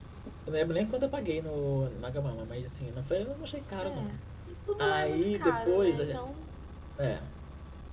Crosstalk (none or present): present